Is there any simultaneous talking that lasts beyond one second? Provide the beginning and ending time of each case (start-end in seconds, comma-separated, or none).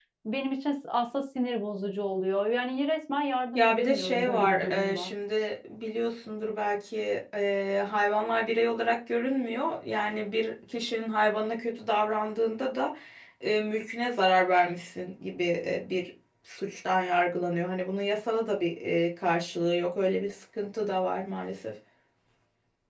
3.5-5.1